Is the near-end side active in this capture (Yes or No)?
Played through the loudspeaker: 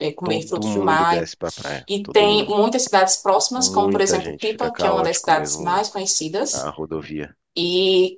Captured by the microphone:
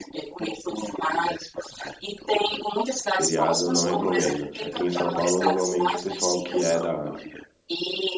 Yes